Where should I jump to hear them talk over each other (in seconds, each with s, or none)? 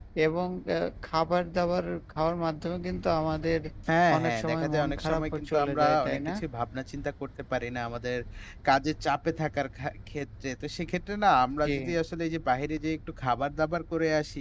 4.2 s